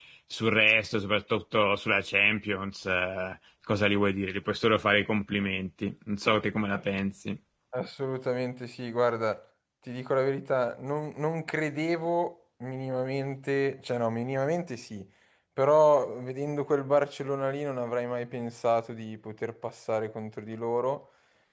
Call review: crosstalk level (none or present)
none